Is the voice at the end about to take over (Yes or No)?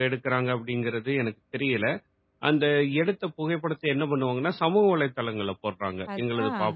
No